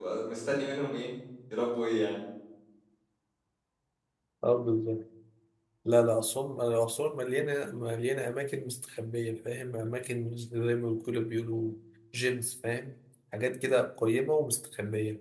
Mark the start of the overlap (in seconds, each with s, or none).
none